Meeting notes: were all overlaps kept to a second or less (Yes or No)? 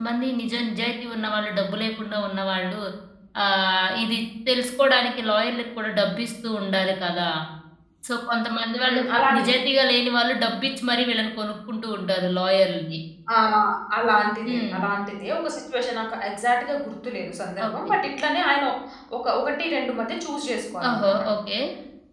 Yes